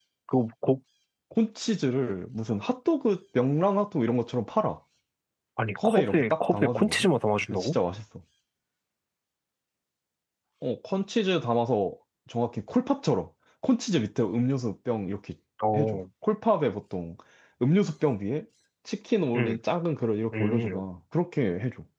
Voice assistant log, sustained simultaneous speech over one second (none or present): present